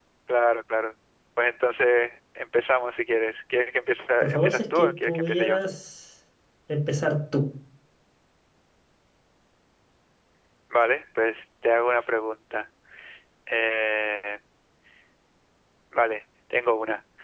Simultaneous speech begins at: 4.2 s

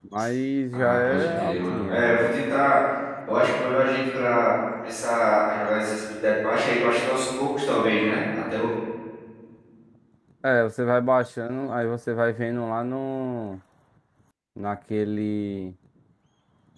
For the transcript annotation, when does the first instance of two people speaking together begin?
0.7 s

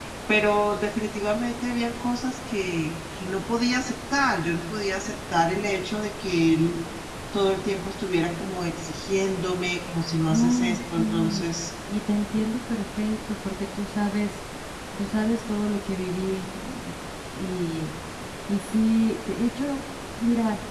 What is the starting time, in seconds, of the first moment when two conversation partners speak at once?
10.3 s

